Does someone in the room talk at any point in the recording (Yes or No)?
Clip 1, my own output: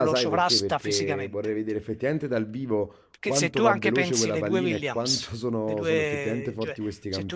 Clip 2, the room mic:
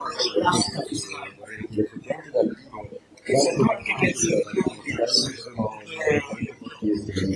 No